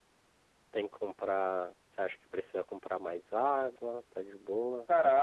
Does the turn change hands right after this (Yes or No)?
Yes